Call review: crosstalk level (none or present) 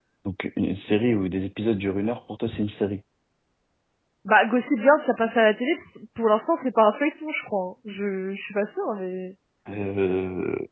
none